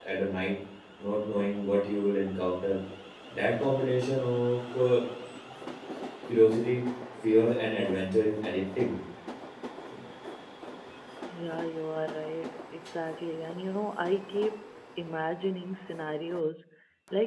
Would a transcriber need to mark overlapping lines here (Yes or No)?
No